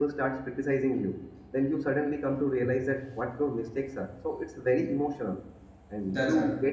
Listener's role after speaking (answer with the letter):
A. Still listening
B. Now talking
A